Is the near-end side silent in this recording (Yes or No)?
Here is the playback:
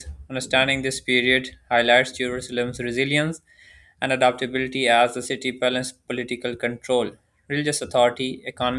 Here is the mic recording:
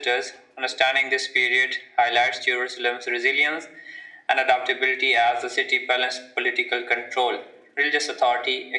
Yes